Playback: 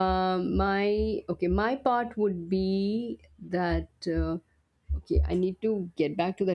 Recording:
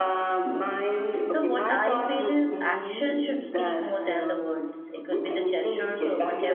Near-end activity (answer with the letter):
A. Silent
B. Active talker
B